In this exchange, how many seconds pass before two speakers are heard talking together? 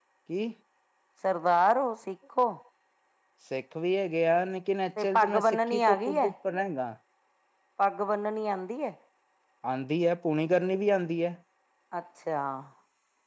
5.0 s

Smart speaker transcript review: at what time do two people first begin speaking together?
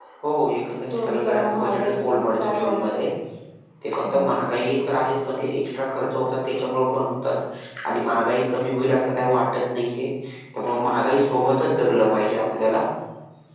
0.9 s

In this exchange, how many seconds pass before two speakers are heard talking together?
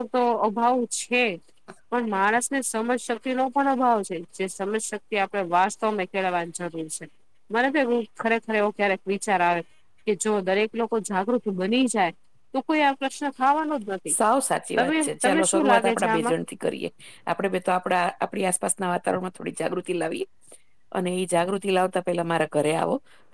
14.8 s

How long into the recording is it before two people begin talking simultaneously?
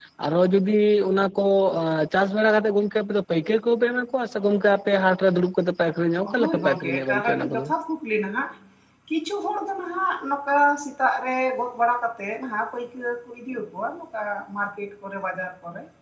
6.2 s

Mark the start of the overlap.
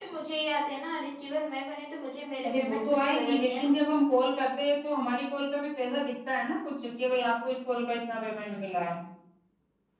2.4 s

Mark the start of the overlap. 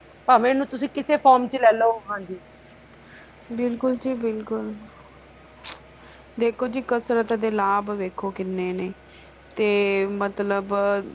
none

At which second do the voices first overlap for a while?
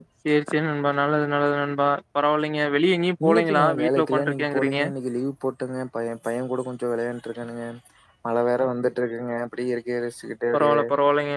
3.2 s

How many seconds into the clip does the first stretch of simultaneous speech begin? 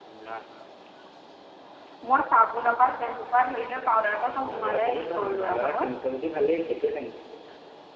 4.2 s

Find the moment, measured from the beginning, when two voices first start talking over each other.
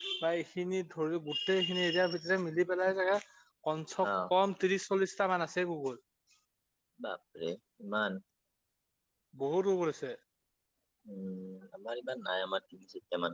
none

